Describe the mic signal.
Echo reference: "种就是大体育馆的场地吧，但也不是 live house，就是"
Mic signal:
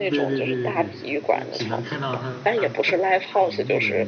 both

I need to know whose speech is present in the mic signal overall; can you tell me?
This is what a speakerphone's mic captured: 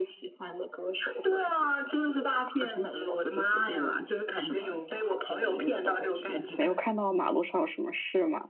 both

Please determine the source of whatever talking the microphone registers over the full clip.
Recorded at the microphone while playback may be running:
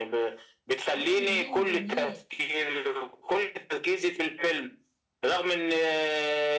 both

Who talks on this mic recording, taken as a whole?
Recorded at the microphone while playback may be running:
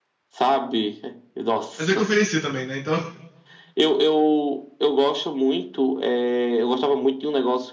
both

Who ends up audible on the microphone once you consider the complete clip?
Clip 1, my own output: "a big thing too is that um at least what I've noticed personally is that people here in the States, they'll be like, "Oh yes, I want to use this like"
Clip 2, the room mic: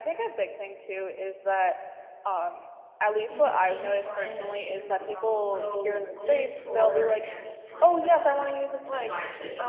both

